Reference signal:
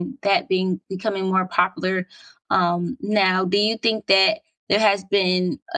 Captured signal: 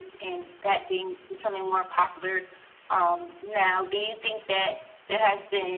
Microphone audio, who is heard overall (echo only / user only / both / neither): echo only